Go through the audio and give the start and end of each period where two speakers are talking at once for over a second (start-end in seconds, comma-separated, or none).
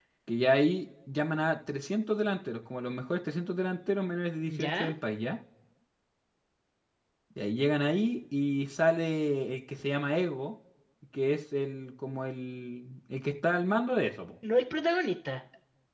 none